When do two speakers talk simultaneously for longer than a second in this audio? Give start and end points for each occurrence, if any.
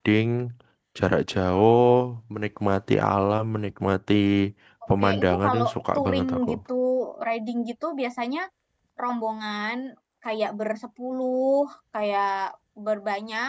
5.0-6.5

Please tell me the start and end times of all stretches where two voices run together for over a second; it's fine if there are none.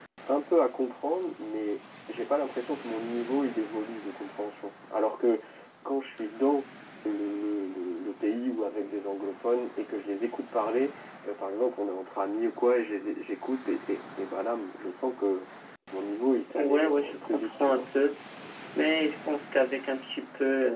16.5-17.8

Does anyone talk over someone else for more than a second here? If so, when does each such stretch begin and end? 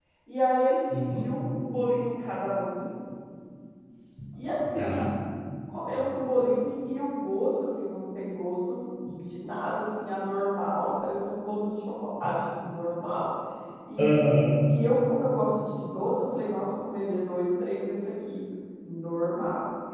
none

